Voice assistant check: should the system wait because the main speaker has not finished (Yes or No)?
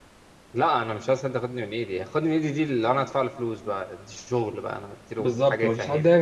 No